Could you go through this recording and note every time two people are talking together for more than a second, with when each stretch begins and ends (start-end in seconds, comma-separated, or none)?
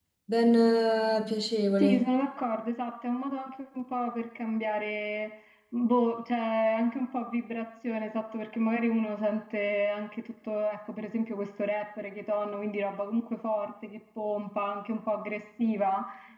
none